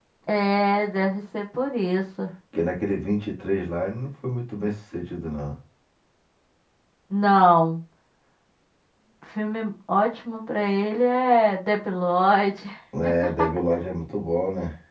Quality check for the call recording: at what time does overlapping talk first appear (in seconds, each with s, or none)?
none